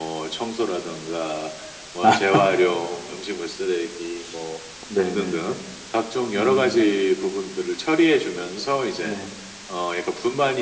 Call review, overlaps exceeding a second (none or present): none